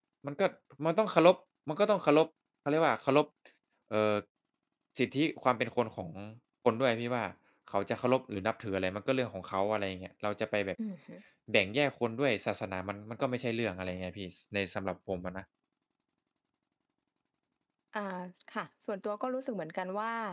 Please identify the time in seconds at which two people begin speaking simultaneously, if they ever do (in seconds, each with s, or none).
none